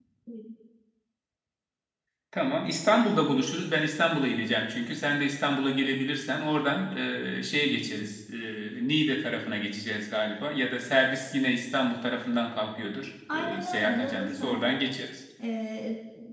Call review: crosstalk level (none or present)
present